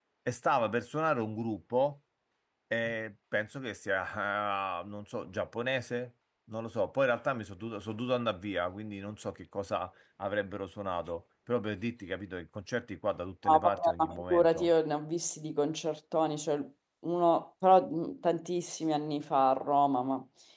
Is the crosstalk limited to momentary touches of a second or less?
No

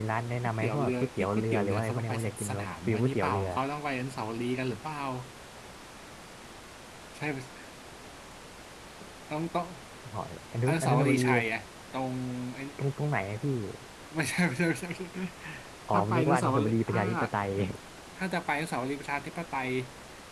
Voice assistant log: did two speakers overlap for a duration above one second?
Yes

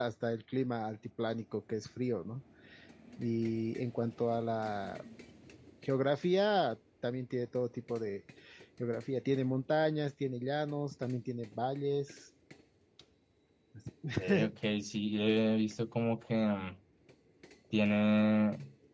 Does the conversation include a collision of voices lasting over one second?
No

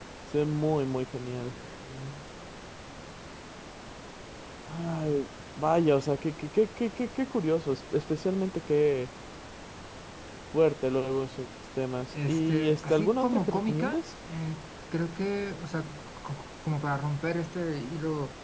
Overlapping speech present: Yes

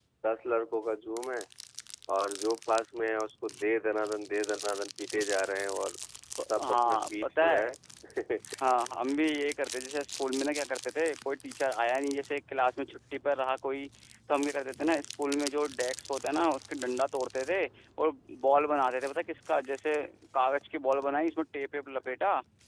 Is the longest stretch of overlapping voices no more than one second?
No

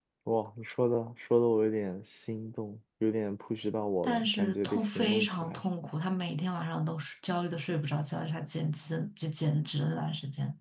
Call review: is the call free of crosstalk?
No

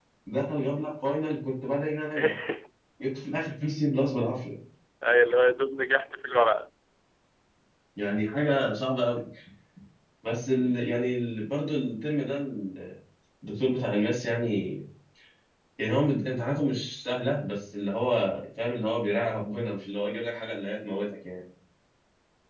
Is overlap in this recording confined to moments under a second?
Yes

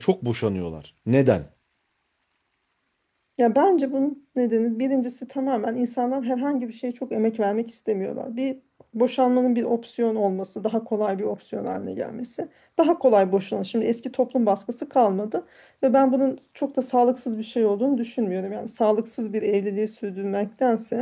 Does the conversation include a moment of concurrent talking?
No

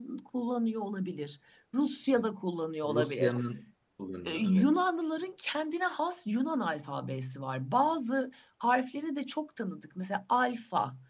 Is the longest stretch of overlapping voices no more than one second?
Yes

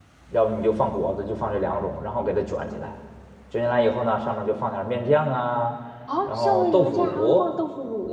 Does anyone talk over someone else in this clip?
Yes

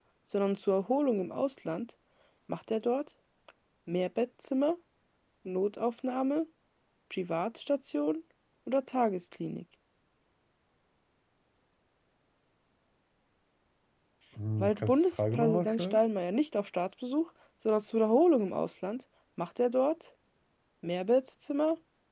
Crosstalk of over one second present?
Yes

